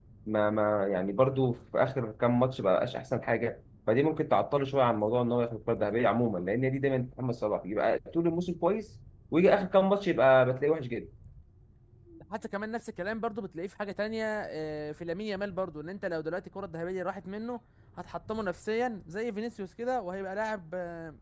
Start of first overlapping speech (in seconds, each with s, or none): none